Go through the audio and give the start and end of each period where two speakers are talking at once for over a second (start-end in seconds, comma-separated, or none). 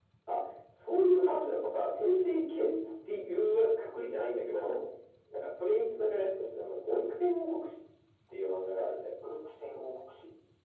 none